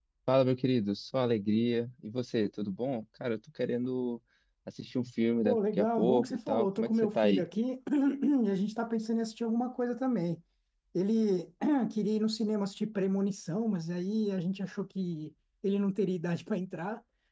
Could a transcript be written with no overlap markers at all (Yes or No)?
No